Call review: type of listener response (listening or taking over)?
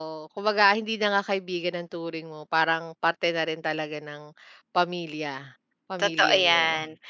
taking over